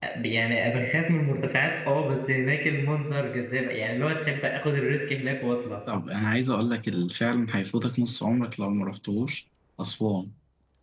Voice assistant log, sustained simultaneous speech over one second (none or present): none